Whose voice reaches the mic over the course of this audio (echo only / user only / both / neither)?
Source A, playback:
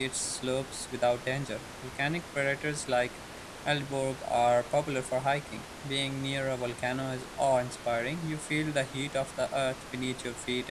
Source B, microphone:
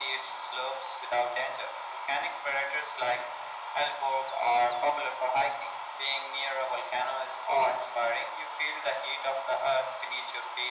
echo only